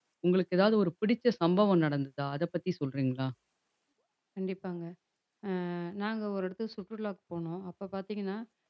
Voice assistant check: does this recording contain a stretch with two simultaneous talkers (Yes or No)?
No